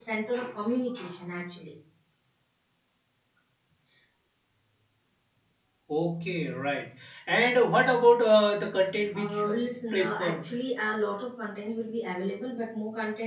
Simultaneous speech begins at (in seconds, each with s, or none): 9.1 s